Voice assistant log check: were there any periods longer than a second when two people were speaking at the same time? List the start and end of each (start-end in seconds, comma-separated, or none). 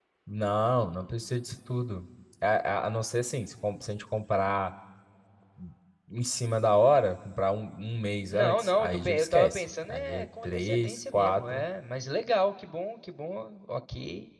8.3-11.6